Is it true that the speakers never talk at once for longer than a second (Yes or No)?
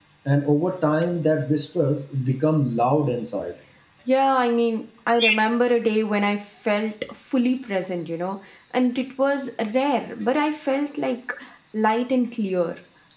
Yes